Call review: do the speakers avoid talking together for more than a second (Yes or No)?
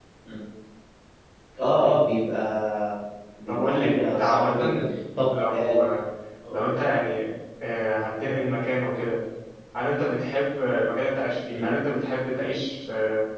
No